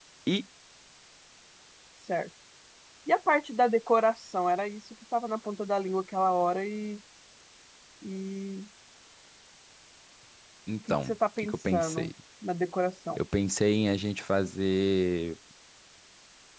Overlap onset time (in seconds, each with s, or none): 10.9 s